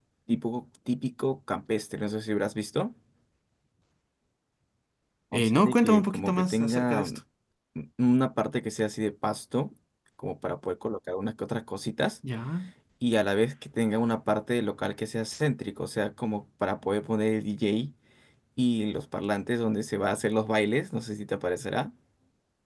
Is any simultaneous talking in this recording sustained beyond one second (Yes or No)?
Yes